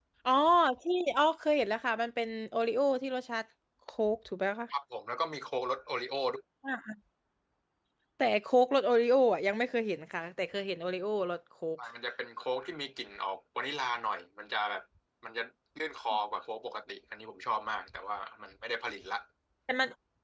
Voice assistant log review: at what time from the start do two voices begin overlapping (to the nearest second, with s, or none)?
none